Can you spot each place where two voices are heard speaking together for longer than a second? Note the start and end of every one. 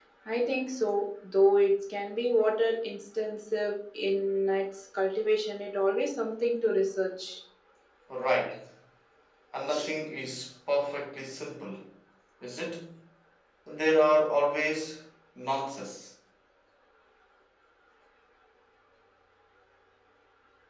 none

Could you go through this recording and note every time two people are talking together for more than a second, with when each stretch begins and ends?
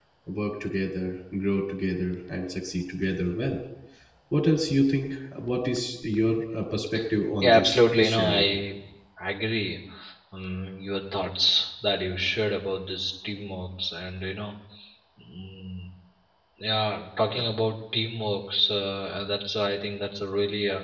7.4-8.6

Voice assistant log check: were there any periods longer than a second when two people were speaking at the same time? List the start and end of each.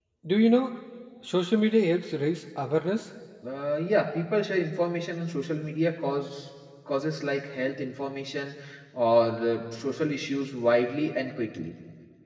none

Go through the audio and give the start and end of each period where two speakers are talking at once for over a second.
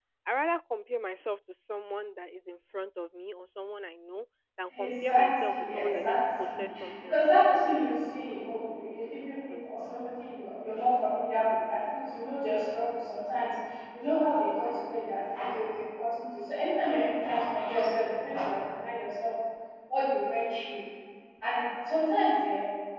4.8-7.9

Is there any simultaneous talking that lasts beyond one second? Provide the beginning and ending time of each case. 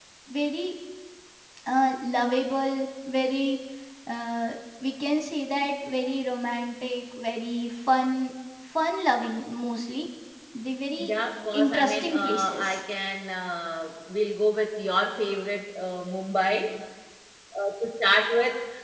11.5-12.8

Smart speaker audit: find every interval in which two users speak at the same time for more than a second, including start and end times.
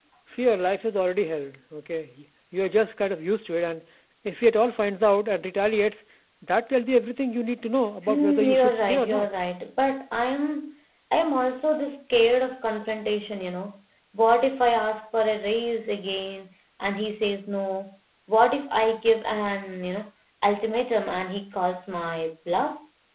8.1-9.3

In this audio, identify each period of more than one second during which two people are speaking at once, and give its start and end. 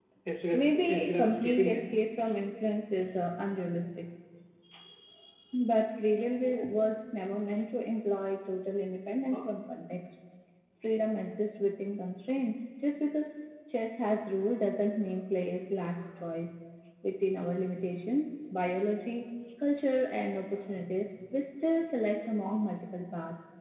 0.5-1.8

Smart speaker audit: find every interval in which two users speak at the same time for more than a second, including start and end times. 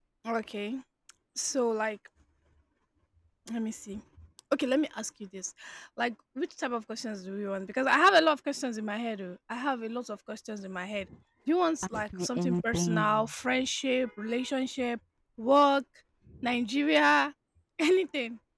11.8-13.3

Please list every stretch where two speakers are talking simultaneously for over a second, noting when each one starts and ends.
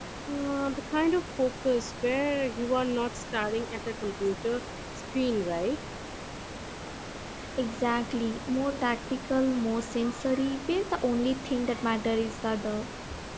none

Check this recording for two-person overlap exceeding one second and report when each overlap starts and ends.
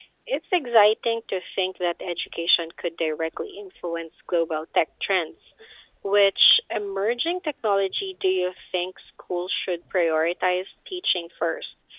none

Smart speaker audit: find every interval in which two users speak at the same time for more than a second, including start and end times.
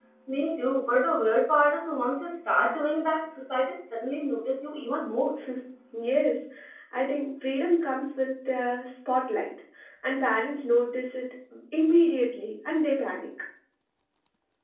none

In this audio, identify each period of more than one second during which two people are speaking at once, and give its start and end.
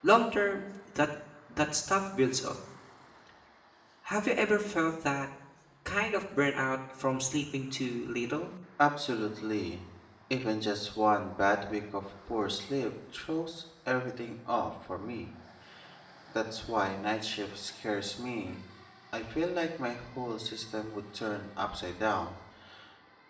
none

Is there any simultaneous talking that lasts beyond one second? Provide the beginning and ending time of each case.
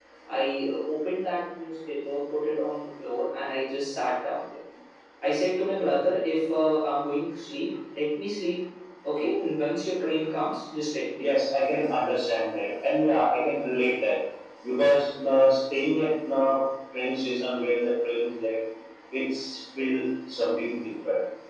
none

